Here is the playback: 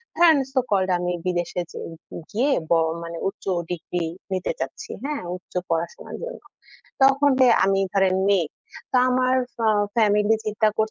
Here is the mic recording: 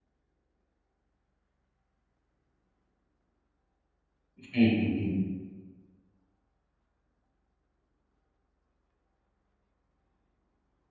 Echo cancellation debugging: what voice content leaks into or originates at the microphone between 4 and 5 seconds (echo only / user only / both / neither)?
user only